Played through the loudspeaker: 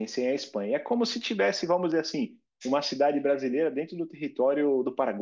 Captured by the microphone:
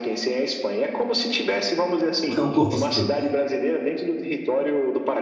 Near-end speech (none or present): present